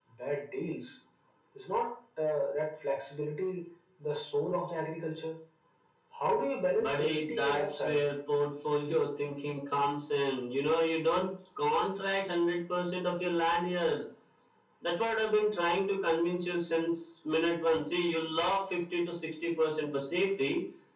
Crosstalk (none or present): present